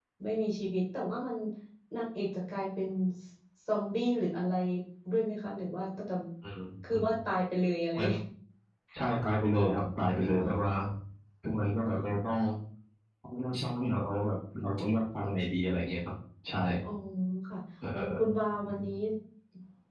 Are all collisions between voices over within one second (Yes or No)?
Yes